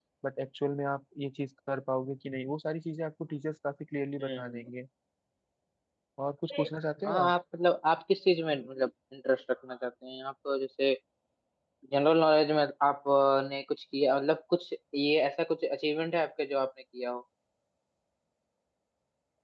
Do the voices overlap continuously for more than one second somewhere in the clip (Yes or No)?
No